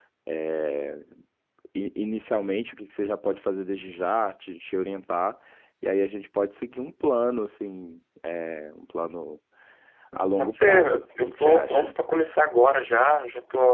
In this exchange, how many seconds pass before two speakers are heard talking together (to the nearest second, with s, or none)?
10 s